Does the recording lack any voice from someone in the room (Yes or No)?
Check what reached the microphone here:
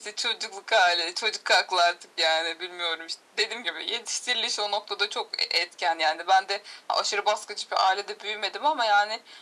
Yes